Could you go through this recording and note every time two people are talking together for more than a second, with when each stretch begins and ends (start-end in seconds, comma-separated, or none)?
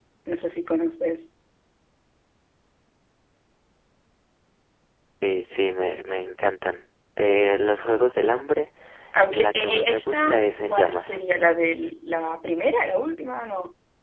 9.3-11.2